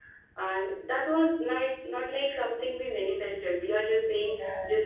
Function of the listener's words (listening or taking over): listening